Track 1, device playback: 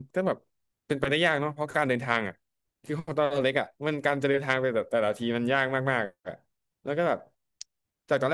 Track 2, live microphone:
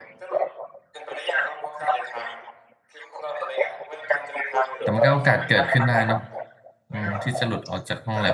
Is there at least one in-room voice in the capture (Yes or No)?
Yes